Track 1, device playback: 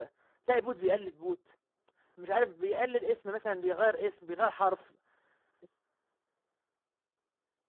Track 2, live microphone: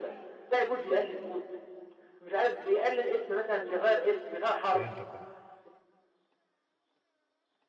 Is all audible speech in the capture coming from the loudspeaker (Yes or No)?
No